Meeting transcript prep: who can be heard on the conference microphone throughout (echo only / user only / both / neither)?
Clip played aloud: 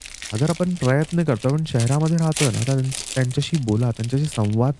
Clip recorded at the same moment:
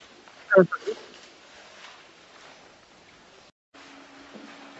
user only